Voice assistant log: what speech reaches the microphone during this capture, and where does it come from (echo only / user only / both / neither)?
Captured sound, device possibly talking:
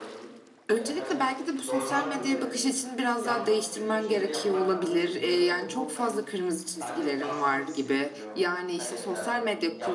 both